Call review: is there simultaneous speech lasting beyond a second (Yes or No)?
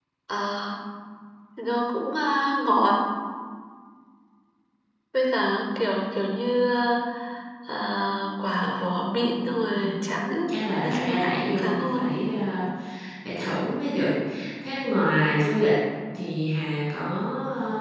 Yes